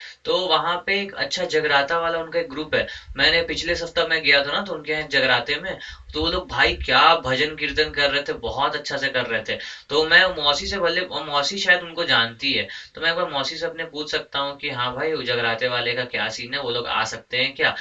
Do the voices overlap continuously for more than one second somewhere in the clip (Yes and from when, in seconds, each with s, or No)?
No